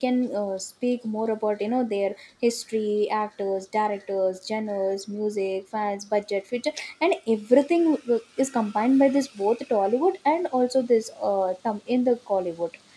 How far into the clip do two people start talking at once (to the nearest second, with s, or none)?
none